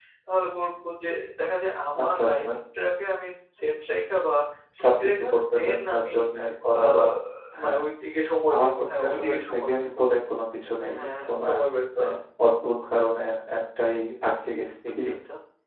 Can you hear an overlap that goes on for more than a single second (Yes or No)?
Yes